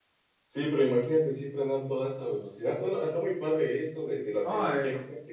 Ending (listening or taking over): taking over